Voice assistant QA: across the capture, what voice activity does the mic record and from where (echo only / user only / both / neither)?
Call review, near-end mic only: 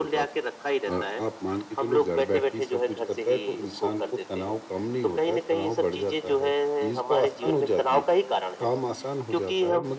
echo only